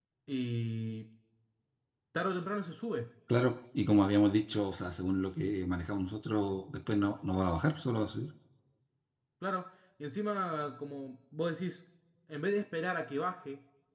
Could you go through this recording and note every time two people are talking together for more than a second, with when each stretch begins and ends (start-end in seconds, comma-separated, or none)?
none